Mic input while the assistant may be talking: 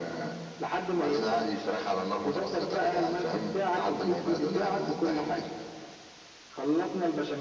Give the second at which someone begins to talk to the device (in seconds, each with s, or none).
none